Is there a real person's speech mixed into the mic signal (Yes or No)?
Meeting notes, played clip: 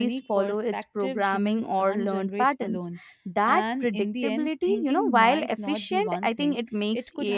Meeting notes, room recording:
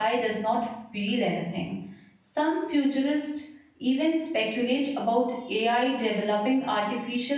Yes